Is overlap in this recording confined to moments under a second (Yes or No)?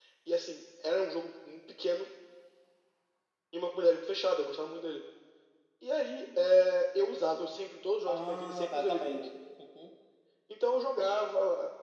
No